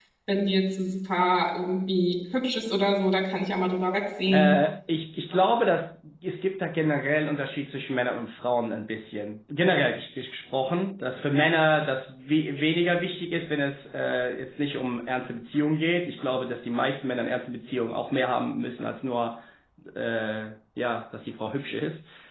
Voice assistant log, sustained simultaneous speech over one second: none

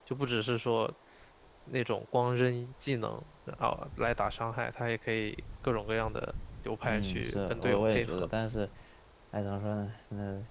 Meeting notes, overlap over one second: present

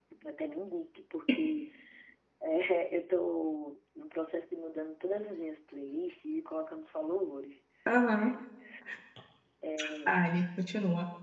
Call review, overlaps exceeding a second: none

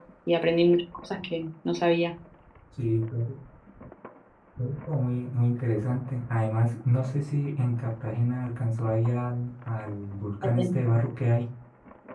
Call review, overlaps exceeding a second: none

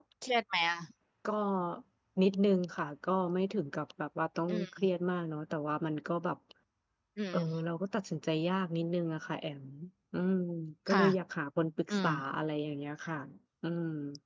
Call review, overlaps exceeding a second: none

